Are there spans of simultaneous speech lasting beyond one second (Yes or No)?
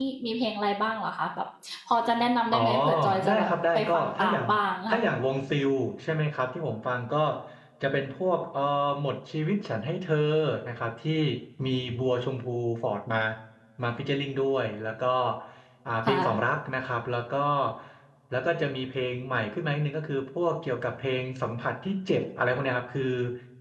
Yes